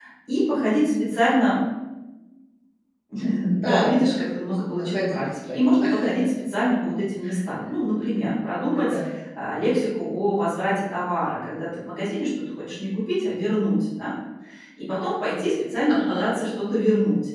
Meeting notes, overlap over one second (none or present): present